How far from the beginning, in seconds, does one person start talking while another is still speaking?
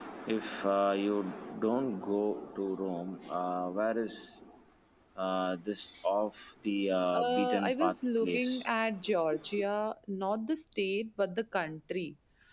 7.1 s

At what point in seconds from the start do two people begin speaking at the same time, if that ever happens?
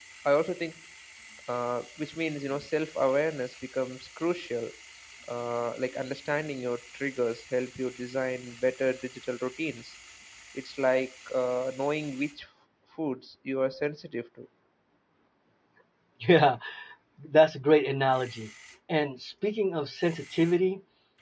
none

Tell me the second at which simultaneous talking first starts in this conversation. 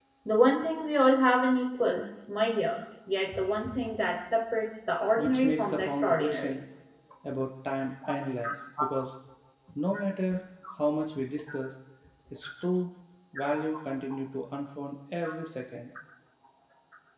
5.2 s

